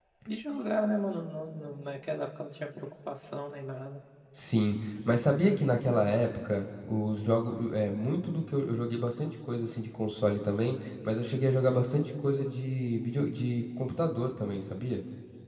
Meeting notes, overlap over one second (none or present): none